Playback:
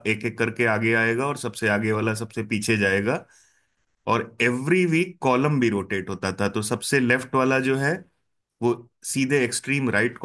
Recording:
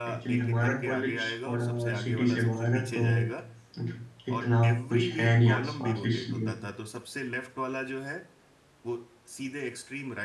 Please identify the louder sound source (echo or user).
user